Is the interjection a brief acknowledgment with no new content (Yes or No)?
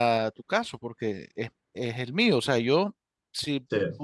Yes